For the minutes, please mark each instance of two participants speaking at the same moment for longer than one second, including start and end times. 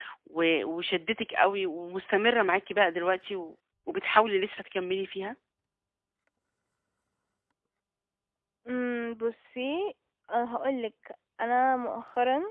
none

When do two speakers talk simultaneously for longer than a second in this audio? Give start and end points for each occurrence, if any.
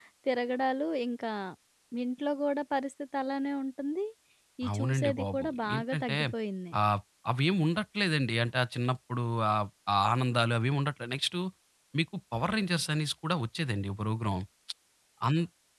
4.7-6.2

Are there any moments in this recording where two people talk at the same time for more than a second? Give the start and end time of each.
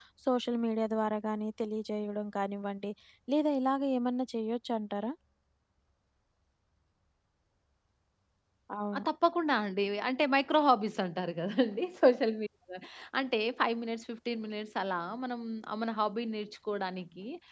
none

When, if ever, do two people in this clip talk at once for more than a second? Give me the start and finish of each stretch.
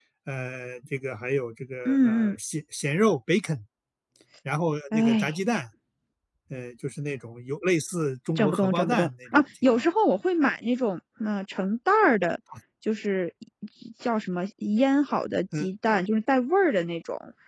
8.4-9.8

